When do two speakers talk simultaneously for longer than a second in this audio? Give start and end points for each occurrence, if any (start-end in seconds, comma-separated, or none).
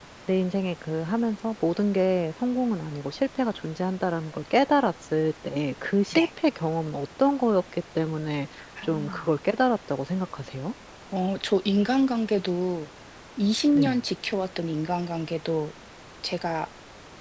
none